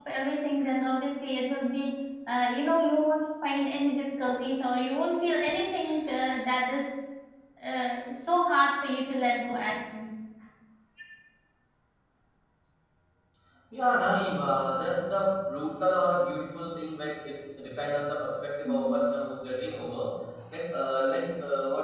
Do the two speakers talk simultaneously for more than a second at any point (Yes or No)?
No